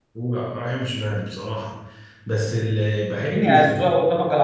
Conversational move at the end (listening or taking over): taking over